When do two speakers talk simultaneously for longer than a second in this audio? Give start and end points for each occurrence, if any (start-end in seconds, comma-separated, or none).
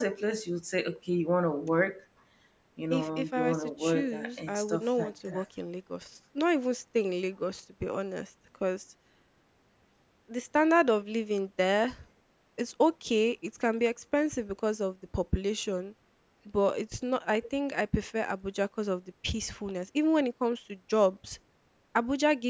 2.9-5.4